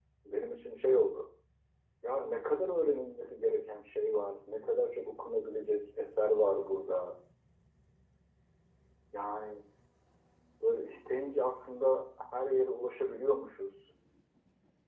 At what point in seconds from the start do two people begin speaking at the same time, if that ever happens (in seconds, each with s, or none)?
none